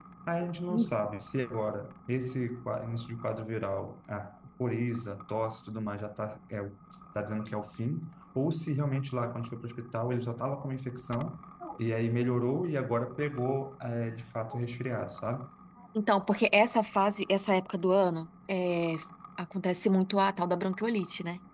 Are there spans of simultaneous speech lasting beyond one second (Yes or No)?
No